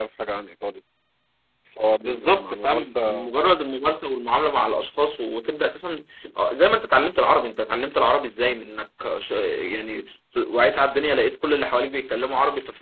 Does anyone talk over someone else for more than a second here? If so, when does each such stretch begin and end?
2.0-3.3

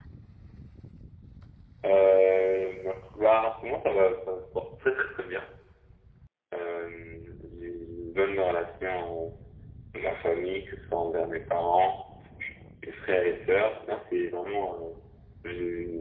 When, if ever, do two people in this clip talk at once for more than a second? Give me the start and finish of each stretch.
none

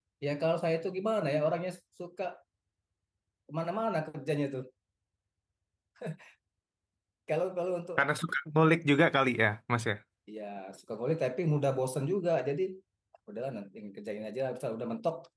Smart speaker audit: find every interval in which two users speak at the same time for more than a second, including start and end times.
none

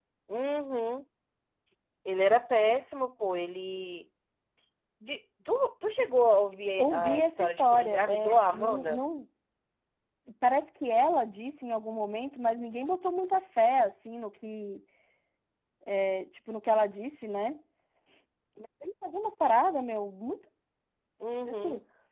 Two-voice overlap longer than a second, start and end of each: 6.8-9.0

